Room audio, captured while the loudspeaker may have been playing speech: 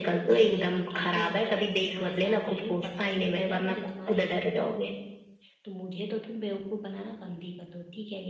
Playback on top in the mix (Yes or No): Yes